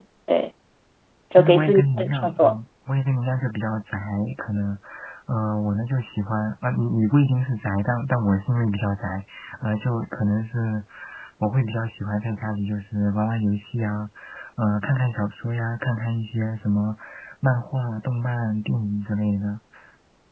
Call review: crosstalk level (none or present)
present